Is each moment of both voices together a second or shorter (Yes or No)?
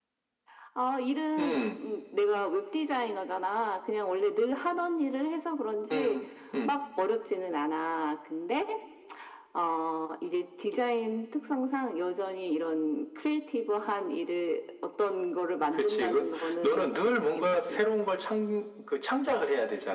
No